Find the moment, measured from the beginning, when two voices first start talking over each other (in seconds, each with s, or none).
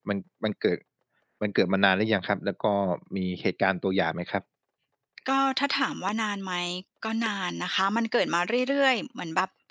none